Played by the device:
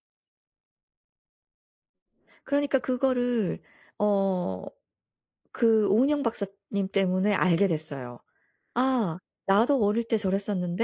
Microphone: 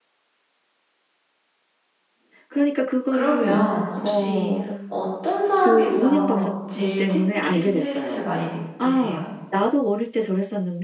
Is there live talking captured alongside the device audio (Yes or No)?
Yes